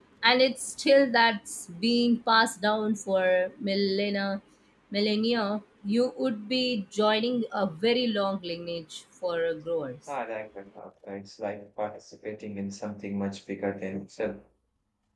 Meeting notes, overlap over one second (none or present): none